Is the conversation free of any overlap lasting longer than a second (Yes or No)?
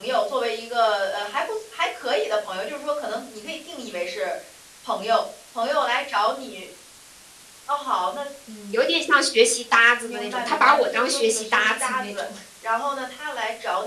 No